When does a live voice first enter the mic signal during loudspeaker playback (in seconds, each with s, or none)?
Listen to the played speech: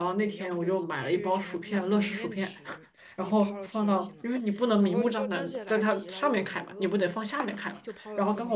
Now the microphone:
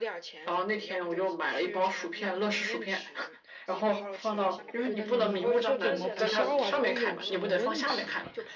4.3 s